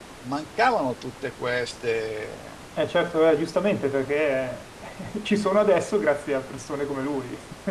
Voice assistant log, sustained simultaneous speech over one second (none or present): none